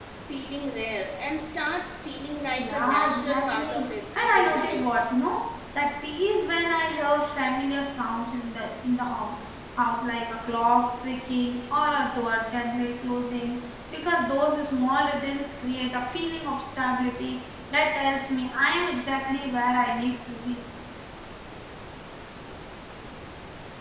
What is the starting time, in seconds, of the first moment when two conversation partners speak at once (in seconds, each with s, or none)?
2.6 s